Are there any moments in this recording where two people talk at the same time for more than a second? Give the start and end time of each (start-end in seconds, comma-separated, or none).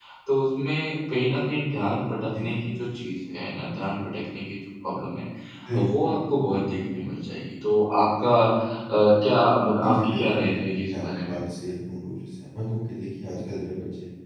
9.8-11.3